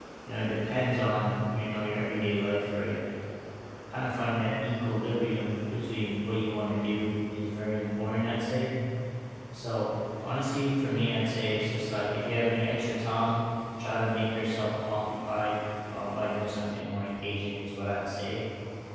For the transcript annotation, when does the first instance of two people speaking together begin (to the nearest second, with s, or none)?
none